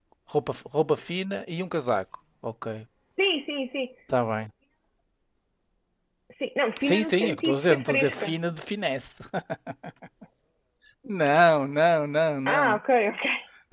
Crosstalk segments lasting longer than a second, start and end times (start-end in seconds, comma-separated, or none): 6.8-8.3